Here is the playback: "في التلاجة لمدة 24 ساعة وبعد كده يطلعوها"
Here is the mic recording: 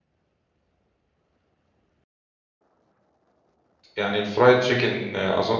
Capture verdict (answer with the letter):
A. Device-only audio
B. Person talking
B